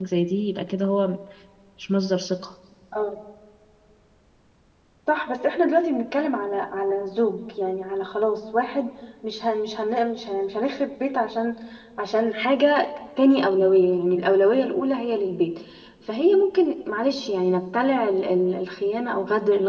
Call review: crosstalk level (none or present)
none